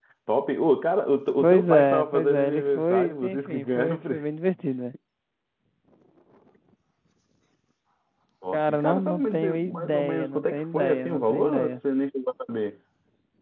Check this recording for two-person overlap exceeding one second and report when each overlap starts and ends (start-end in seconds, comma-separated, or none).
1.4-4.2, 8.5-11.8